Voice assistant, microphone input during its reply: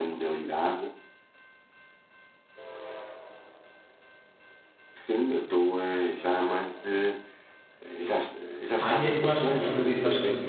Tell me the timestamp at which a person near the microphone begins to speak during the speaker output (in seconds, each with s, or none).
8.8 s